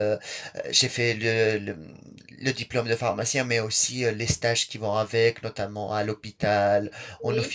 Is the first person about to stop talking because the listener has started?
No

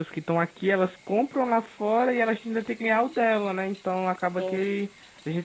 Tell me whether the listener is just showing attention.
Yes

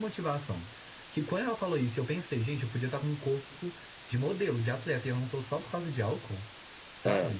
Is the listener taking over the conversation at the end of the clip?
Yes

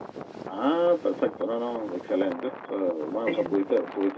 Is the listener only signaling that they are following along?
Yes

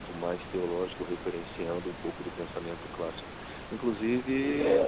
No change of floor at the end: Yes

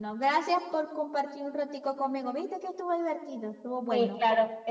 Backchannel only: No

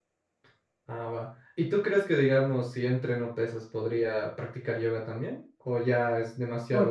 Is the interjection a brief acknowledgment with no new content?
No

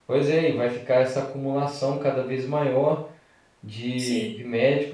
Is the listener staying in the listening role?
Yes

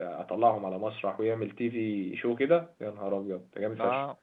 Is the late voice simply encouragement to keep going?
No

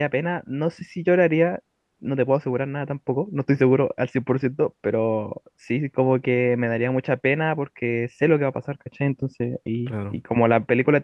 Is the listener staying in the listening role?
Yes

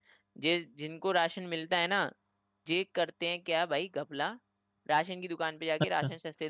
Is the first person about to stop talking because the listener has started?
No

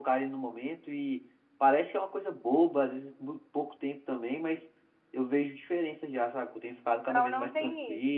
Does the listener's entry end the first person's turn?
Yes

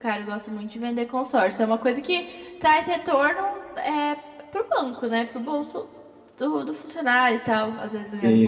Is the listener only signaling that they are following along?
No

